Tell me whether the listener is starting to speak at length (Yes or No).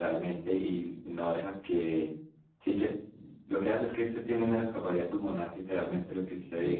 Yes